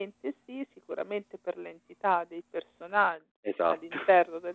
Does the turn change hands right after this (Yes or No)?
No